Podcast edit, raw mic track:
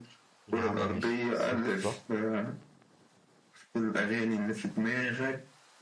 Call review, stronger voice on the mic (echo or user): echo